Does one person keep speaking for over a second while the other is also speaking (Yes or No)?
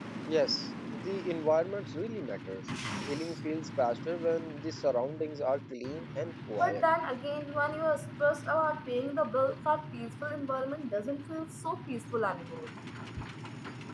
No